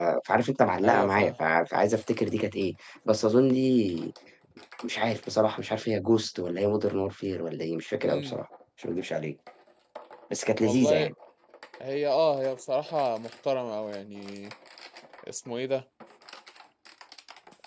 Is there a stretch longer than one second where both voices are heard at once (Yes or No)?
No